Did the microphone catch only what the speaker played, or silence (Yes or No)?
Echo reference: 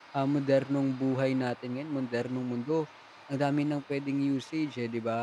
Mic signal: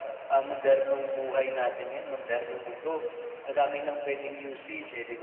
Yes